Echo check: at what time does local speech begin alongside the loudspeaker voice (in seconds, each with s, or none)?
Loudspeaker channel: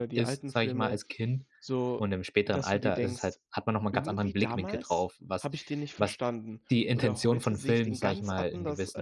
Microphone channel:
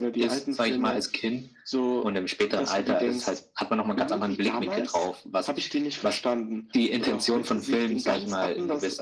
none